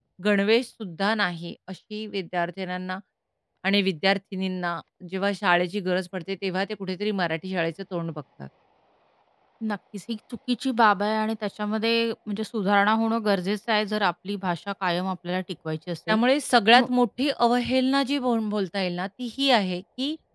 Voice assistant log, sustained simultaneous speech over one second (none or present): none